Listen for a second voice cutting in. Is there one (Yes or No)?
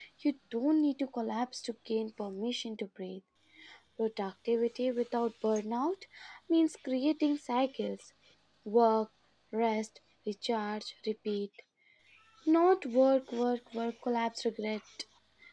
No